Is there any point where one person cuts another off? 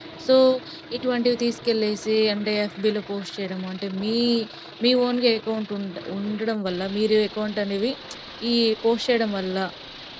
No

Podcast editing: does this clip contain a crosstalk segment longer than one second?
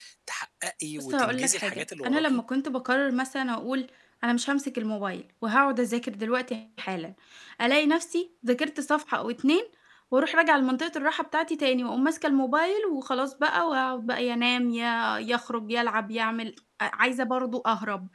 Yes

